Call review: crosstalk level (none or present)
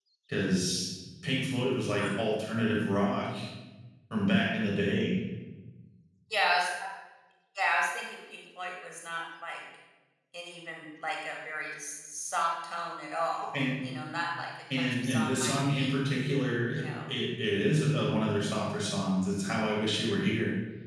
present